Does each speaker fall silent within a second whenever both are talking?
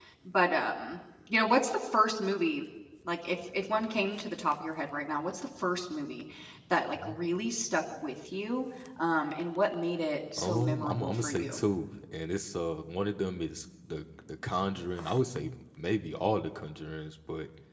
No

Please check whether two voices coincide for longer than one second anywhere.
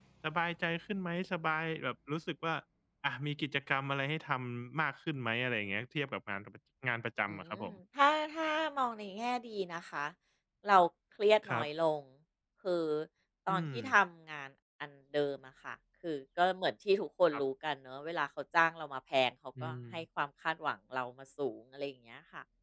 No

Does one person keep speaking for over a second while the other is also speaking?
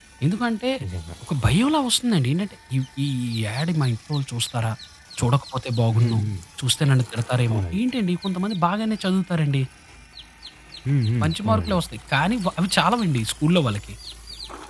No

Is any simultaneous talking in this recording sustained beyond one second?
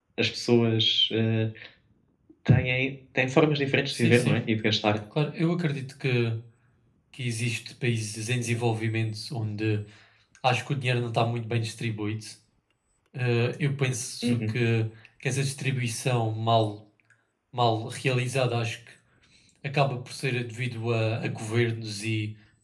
No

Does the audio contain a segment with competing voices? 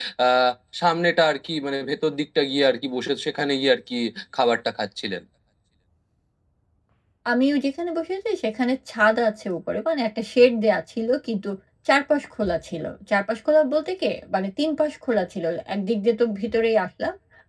No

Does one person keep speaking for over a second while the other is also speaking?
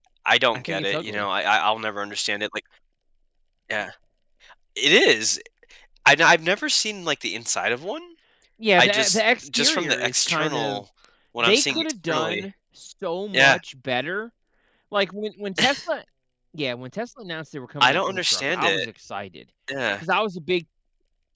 Yes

